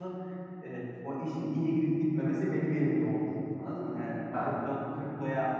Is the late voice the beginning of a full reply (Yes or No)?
No